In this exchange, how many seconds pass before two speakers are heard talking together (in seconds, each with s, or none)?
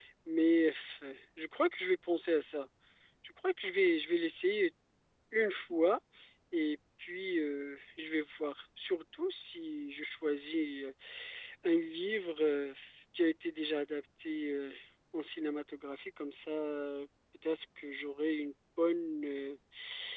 none